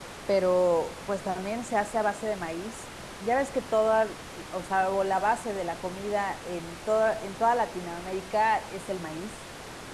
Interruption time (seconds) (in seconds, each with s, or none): none